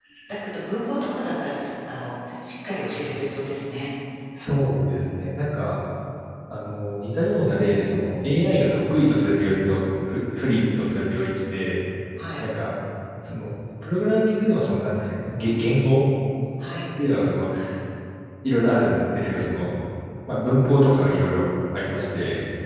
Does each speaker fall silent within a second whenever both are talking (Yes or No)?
Yes